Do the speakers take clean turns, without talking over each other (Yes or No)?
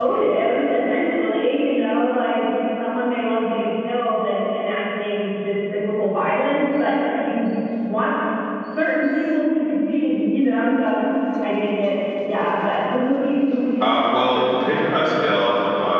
No